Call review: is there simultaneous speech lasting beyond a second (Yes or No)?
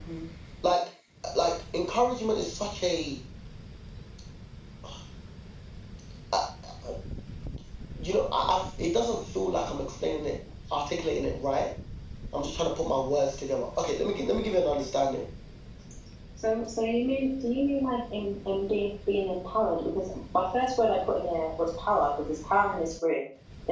No